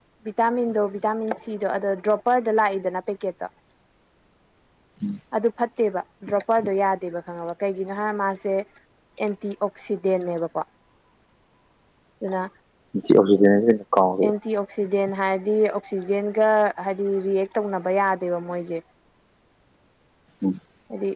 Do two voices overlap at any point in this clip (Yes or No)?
No